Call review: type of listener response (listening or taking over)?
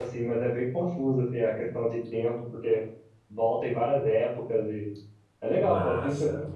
taking over